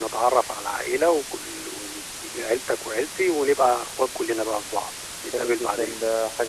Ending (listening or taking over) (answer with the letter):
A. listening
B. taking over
B